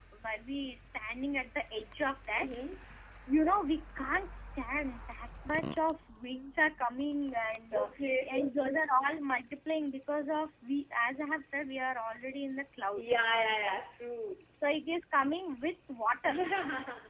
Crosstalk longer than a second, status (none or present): none